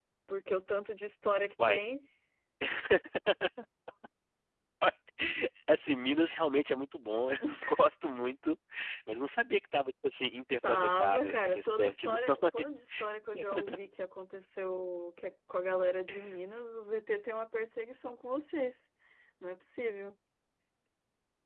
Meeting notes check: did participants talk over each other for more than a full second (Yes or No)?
Yes